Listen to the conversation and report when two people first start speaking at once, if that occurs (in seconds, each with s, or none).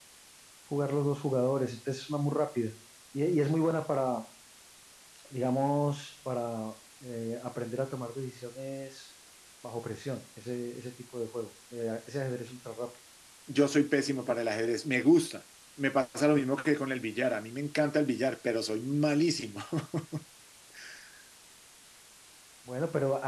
none